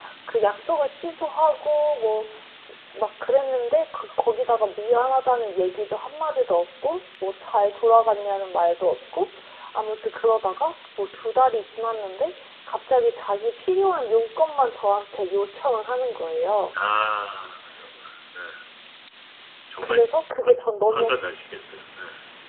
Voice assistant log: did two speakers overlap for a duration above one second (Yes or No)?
No